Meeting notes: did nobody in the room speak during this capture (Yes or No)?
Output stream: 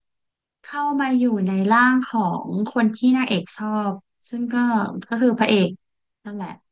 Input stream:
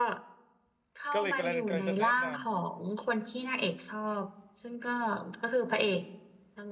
No